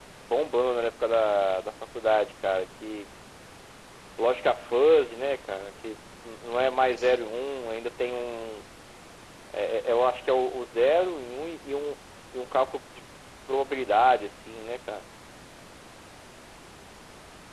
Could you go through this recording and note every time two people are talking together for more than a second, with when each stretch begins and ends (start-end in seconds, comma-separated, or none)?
none